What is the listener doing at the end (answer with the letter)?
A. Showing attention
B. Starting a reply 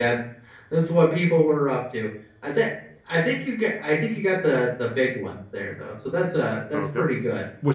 B